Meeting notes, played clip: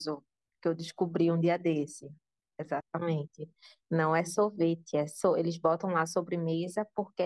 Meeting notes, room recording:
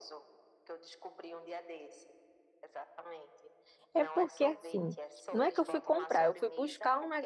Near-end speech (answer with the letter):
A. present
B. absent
A